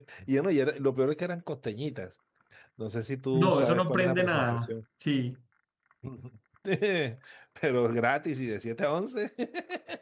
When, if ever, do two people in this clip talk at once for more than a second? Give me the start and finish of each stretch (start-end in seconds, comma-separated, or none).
3.3-4.7